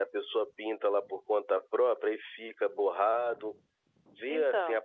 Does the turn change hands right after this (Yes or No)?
Yes